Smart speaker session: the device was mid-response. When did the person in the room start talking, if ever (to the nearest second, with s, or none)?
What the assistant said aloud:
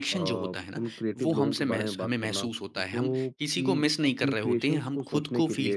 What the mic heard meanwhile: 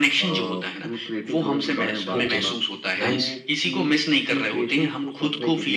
2 s